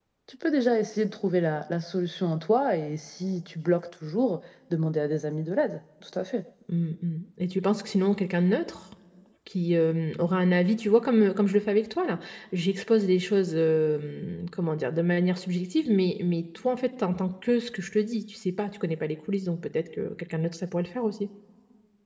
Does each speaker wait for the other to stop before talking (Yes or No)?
Yes